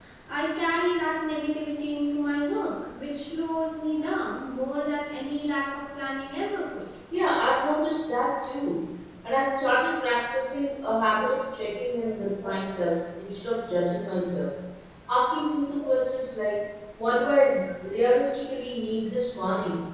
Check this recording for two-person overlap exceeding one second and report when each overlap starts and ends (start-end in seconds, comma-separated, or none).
none